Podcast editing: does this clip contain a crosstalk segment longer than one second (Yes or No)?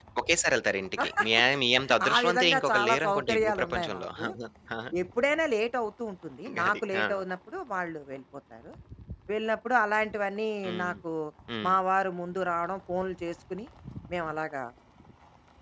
Yes